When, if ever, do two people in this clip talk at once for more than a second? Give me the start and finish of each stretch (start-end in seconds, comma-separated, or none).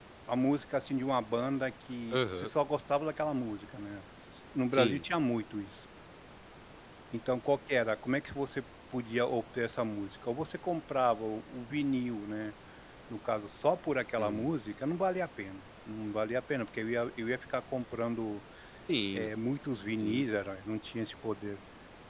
none